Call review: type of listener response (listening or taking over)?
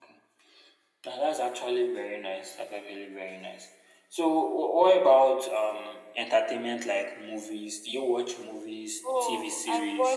taking over